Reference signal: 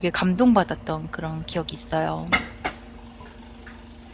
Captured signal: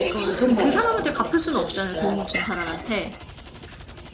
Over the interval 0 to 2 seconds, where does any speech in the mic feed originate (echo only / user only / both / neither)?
both